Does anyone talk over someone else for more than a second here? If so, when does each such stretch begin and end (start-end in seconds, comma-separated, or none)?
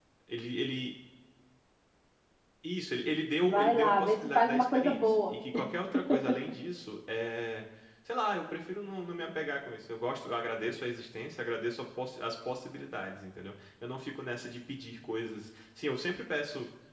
3.4-5.3